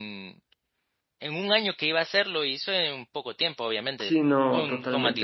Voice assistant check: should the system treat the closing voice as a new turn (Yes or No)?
Yes